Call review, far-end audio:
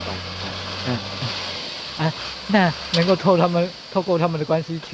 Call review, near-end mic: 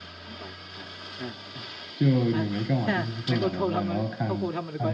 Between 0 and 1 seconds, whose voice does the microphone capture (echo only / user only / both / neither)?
echo only